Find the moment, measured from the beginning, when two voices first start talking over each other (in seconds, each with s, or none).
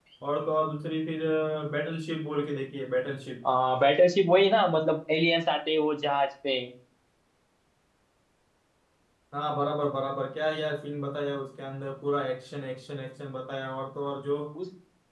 none